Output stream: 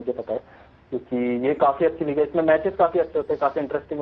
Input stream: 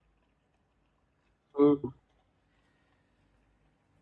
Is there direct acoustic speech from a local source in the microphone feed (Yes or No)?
Yes